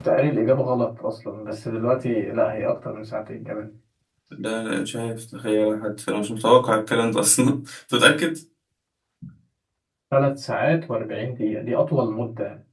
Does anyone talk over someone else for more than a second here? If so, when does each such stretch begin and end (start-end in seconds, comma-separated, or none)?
none